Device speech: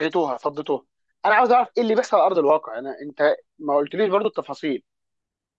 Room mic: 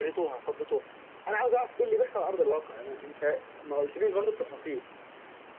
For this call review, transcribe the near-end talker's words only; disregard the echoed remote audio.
none

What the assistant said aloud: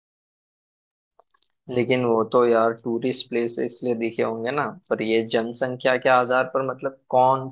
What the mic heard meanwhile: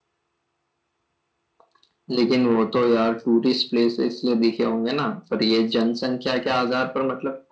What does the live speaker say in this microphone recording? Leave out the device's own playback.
none

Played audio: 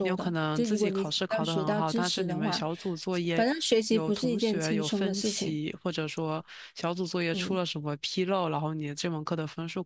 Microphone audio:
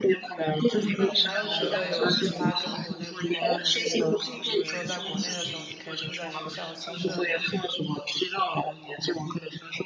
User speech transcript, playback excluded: 那你还有觉得有其他跟国内不一样的地方吗？比如说，在国内的时候，你可以住在学校宿舍里，

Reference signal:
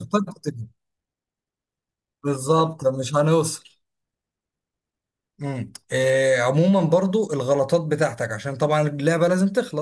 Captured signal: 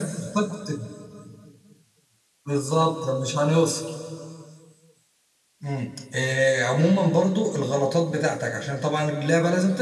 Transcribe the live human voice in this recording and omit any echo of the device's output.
none

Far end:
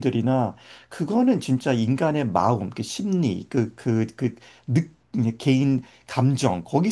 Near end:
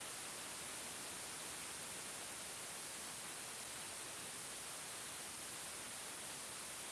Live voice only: none

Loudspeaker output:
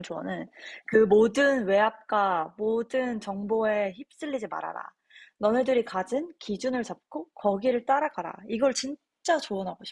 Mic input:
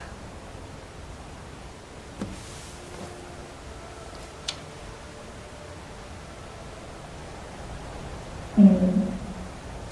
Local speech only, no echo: 음,

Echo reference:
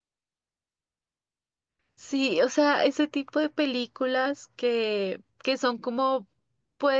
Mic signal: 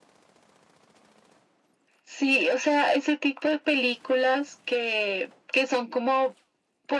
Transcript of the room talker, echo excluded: none

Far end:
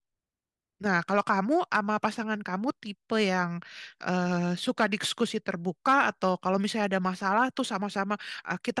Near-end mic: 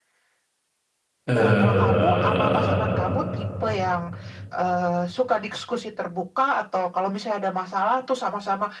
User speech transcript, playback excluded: Eh,

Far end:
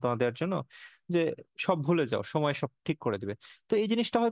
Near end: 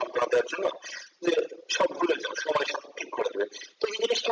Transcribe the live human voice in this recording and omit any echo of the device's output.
none

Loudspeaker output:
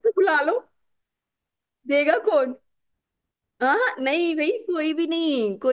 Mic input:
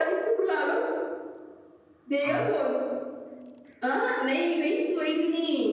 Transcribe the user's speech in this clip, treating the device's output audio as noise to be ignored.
आप

